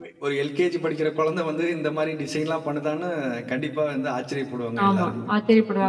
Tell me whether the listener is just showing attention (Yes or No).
No